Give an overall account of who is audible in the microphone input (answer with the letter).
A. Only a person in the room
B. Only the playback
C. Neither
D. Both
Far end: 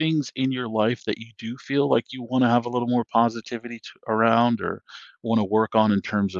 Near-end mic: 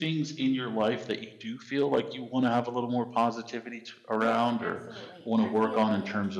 D